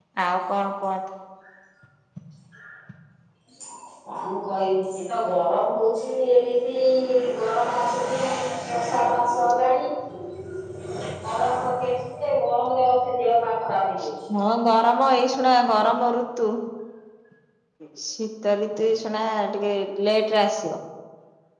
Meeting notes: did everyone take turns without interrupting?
Yes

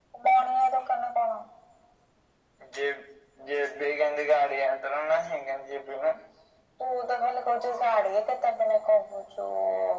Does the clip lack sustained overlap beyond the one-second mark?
Yes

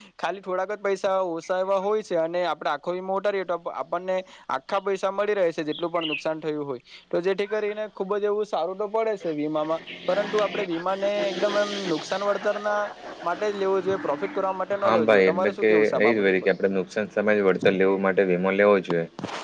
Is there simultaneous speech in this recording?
Yes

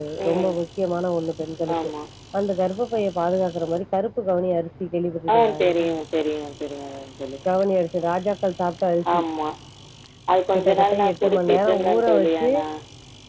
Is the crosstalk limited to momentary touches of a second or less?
No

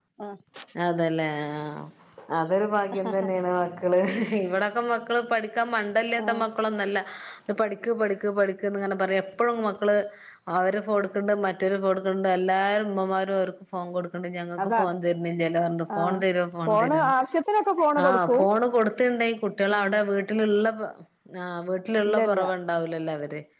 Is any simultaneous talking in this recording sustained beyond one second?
No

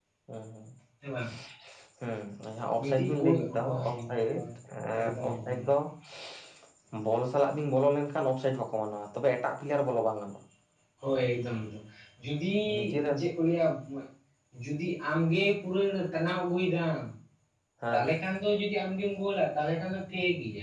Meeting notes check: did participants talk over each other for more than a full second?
Yes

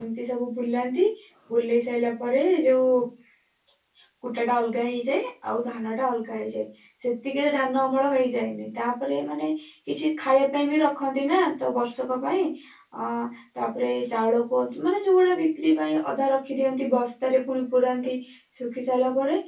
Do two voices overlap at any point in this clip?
No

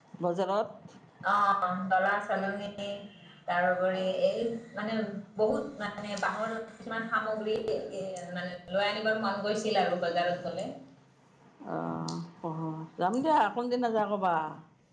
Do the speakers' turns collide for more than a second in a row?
No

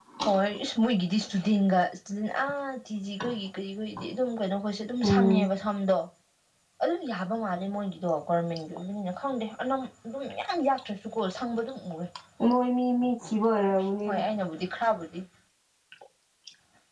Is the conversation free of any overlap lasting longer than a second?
Yes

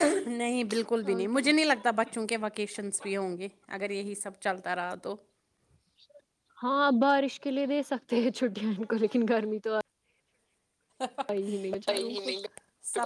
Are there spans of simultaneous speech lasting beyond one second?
No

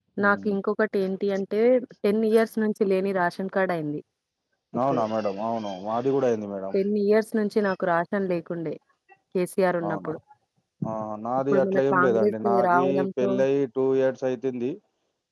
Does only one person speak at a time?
No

